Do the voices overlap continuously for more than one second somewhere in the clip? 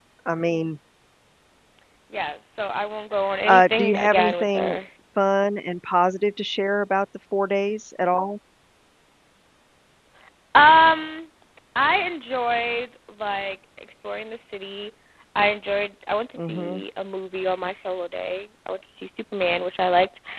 Yes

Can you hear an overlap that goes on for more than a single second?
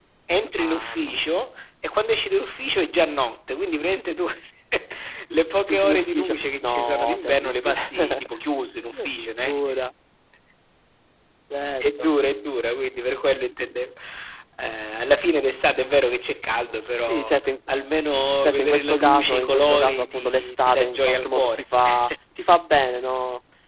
Yes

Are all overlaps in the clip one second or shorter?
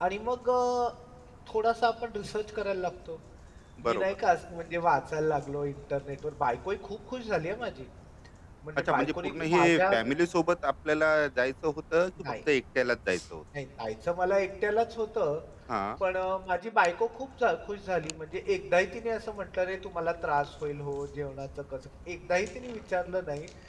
No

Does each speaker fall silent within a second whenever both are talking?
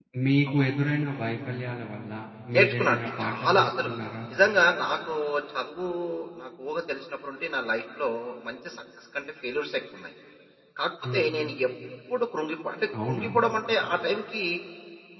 No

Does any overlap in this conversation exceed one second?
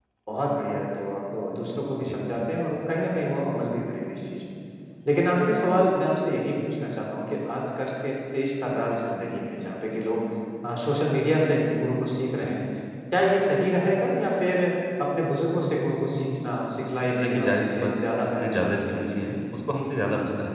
Yes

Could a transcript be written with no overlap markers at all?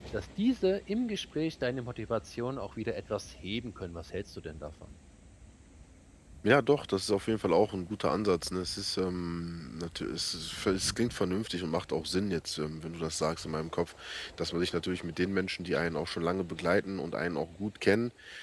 Yes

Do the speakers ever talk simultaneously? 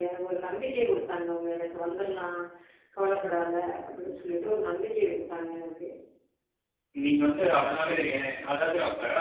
No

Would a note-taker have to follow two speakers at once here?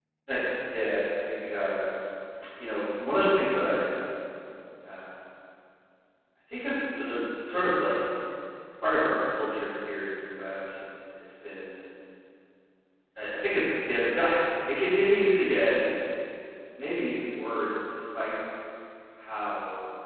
No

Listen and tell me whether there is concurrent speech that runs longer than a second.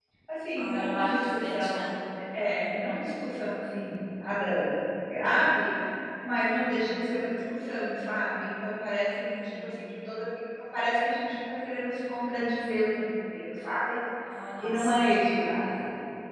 Yes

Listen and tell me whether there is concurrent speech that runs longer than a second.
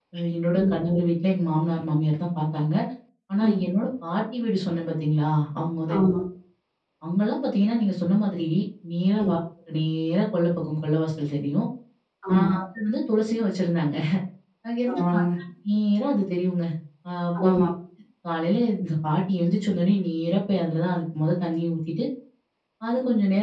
No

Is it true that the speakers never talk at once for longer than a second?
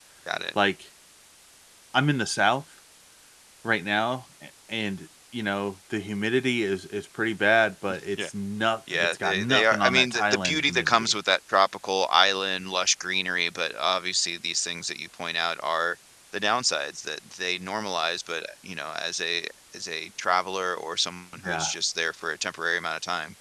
No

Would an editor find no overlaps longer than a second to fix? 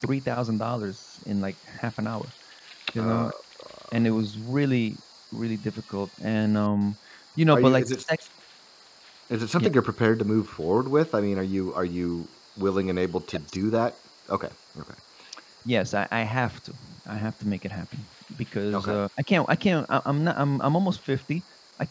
Yes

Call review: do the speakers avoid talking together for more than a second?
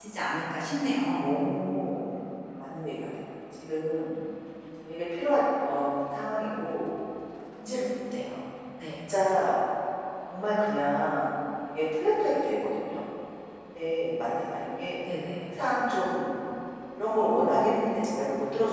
Yes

